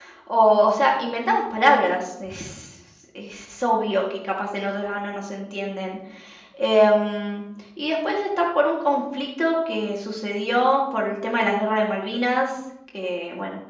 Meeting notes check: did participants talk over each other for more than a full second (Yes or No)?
No